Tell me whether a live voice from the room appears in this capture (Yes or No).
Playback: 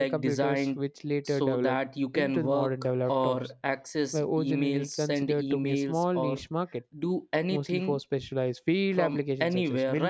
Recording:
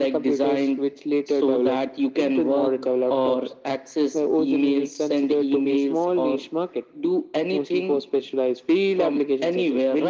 No